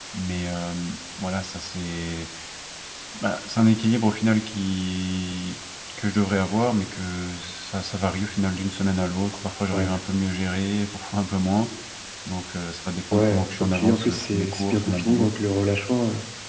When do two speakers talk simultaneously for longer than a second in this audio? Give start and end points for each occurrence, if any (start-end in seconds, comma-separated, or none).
13.1-15.3